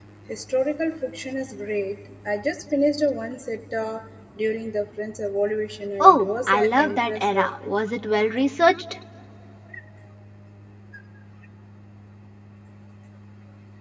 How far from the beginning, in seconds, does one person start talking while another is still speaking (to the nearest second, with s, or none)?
6 s